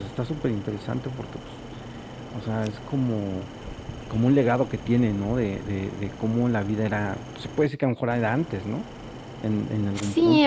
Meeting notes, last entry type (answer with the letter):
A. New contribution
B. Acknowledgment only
A